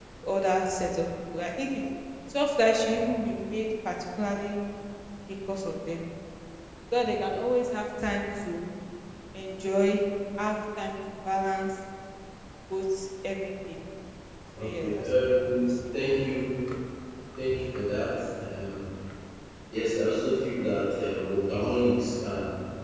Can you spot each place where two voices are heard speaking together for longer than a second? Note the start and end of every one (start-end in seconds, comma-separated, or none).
14.6-15.8